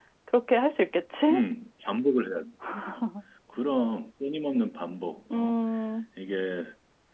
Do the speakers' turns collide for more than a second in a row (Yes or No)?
No